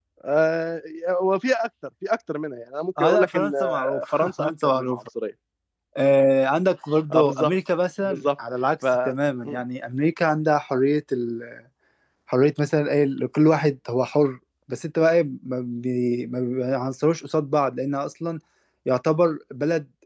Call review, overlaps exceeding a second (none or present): present